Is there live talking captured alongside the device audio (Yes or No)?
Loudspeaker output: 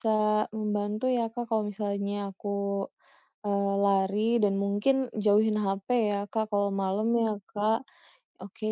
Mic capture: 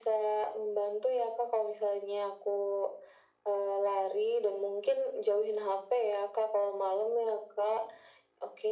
No